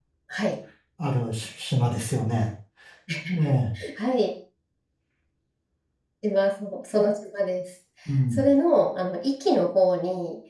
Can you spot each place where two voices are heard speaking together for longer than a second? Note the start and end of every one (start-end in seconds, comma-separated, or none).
none